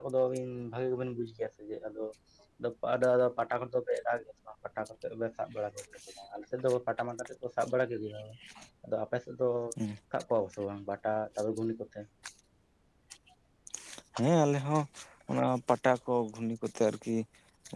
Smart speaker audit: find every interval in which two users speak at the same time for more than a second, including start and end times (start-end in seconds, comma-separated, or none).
none